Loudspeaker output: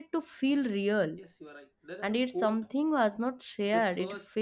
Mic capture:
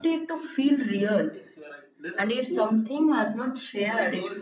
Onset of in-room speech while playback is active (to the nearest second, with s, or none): none